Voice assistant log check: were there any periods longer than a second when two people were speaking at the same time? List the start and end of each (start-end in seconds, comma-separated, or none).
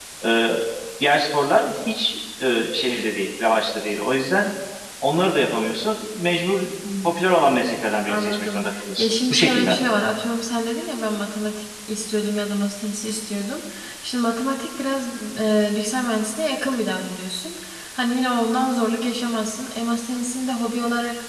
8.1-9.8